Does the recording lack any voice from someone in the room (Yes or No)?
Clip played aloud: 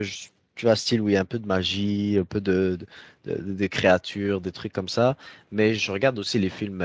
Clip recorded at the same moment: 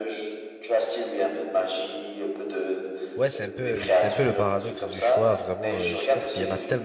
No